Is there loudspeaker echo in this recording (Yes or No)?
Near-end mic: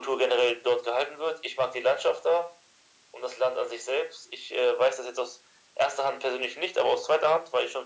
Yes